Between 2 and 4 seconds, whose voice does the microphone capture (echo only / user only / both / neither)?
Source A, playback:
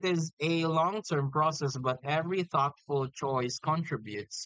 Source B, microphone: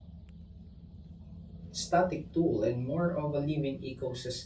user only